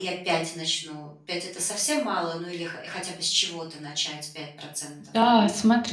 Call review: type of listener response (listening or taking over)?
taking over